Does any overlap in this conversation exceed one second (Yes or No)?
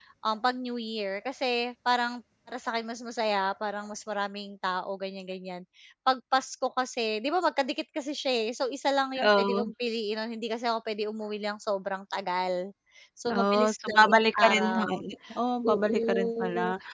Yes